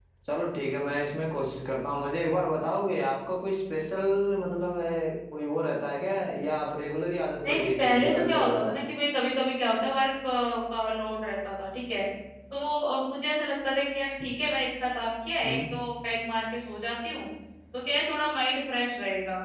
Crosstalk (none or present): present